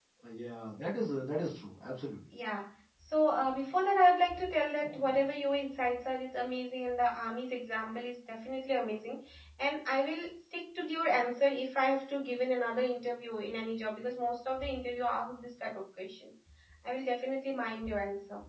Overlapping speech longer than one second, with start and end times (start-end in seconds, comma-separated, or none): none